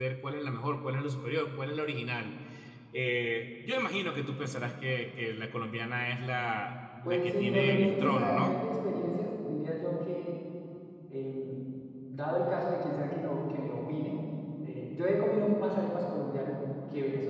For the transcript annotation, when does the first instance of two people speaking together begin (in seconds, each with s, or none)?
7.0 s